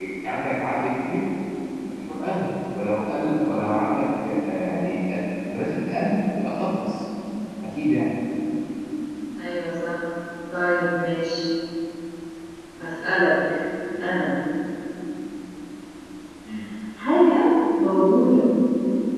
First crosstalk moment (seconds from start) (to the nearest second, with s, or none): none